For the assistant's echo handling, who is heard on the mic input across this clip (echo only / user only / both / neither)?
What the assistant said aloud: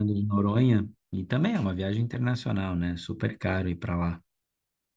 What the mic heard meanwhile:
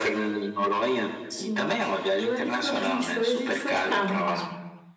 both